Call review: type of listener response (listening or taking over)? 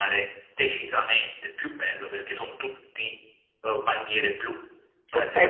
taking over